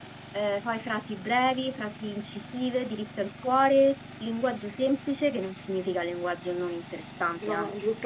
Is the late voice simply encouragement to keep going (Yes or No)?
No